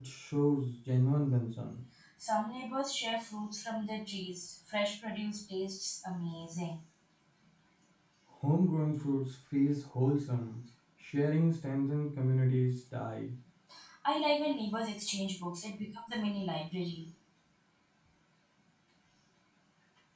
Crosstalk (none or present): none